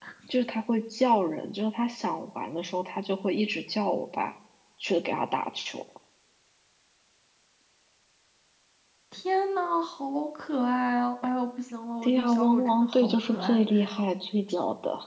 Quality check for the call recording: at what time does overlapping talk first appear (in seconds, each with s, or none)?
12.0 s